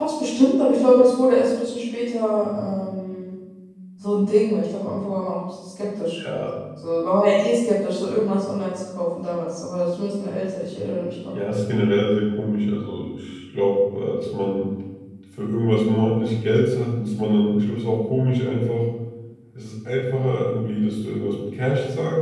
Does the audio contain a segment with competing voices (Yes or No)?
No